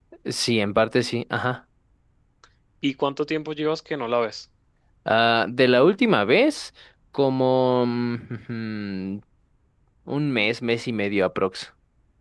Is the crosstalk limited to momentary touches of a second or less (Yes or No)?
Yes